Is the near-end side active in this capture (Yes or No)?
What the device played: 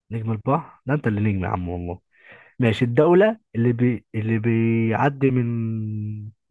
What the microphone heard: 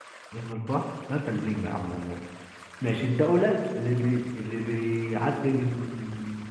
No